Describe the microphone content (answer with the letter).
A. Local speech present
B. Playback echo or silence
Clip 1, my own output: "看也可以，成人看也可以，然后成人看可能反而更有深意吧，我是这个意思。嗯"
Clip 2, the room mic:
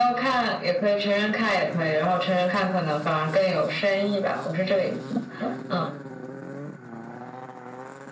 B